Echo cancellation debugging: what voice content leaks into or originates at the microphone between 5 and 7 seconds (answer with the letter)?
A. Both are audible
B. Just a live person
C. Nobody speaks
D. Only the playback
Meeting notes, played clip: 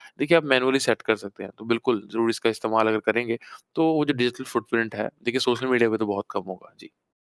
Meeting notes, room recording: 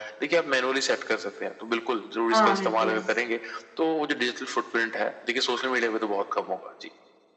D